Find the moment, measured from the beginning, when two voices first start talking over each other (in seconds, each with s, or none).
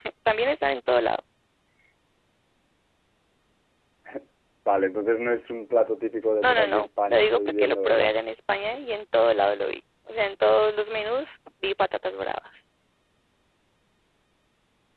6.4 s